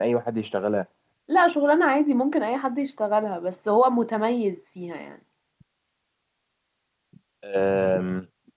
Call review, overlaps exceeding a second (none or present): none